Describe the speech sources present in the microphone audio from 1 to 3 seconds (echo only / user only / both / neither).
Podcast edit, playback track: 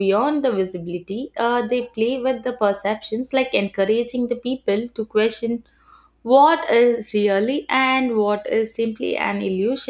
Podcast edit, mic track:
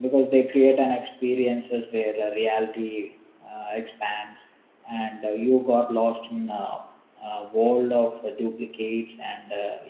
user only